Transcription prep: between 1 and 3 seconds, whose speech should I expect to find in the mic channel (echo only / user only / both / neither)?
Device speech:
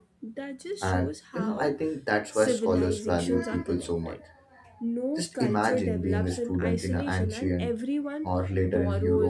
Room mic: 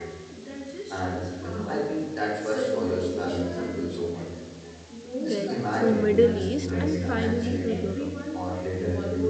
echo only